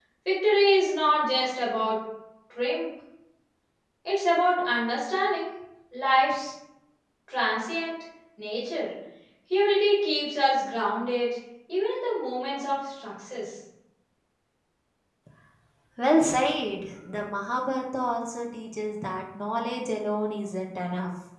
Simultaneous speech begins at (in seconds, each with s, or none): none